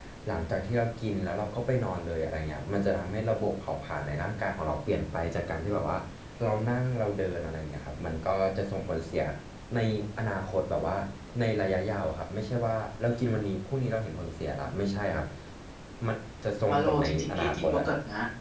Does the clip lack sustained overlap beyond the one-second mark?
No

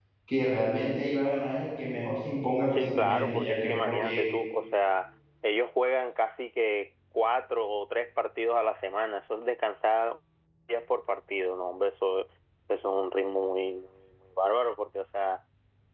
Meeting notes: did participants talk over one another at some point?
Yes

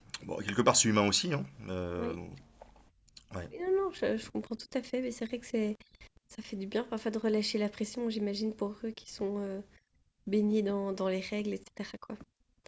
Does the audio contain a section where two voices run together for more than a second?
No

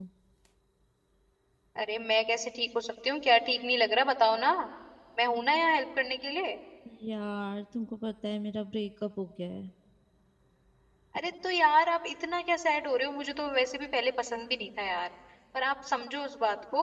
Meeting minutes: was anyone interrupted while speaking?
No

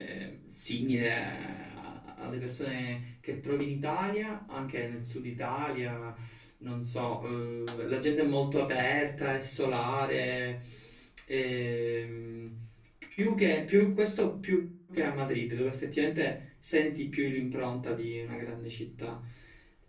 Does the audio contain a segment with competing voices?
No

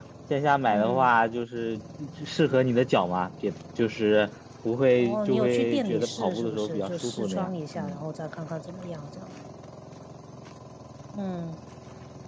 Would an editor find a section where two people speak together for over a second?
Yes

